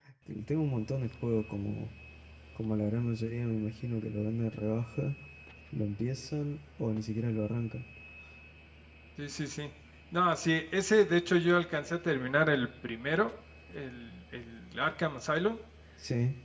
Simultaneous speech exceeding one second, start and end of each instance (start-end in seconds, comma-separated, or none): none